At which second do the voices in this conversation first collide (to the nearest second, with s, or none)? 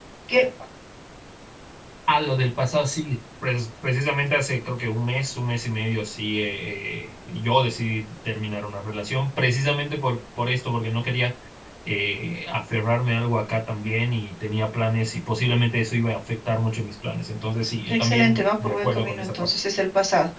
18 s